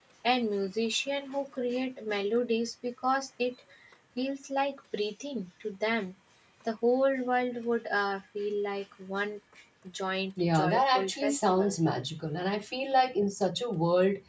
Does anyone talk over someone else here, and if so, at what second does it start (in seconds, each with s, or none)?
10.4 s